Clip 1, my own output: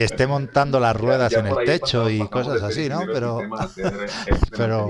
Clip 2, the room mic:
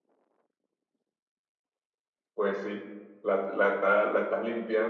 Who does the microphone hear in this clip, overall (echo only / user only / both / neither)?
user only